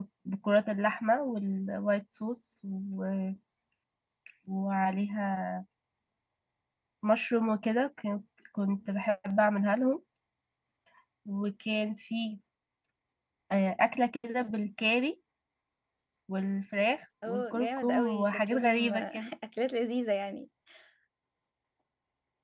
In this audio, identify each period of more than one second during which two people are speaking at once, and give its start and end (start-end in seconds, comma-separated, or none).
17.3-19.3